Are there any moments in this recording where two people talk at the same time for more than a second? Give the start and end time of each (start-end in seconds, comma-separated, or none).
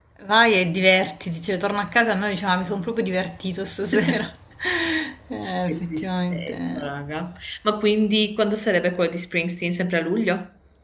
5.7-6.9